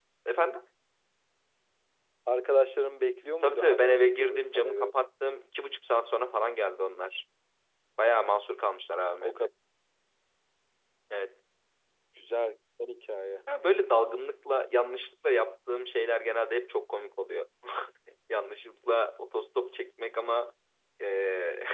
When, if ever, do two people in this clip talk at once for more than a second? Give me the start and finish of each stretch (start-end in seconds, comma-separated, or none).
3.4-4.9